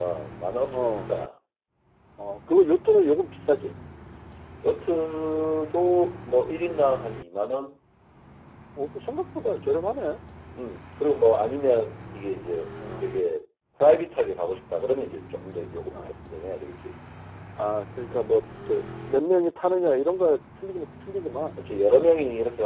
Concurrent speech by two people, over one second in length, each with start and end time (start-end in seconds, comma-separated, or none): none